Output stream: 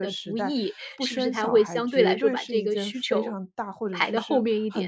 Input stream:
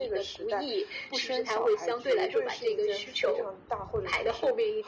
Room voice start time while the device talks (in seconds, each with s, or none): none